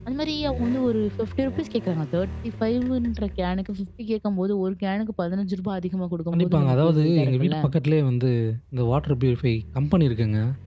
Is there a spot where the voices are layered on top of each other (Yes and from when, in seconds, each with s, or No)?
Yes, from 6.3 s